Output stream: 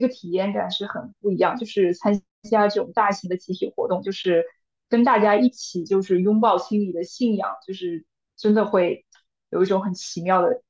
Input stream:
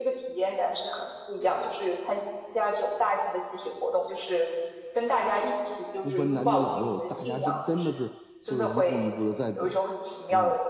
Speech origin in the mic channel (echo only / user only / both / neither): both